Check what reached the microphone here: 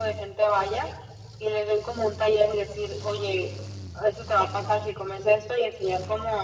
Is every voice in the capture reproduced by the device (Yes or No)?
Yes